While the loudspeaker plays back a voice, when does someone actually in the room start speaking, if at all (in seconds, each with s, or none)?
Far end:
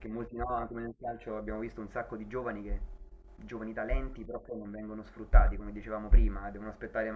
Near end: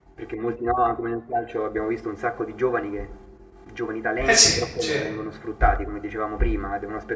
4.2 s